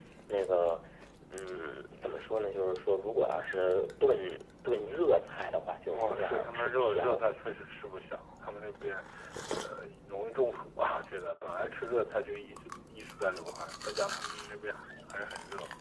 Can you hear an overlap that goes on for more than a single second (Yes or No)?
Yes